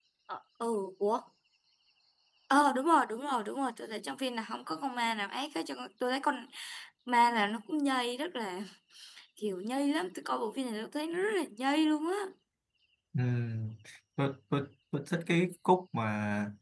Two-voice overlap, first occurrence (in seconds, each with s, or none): none